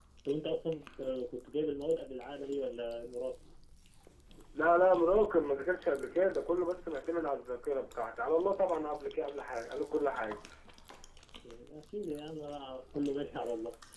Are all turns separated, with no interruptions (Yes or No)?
Yes